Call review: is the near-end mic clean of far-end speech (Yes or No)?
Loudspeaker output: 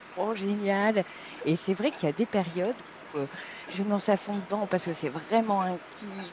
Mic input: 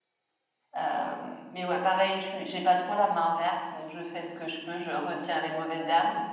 Yes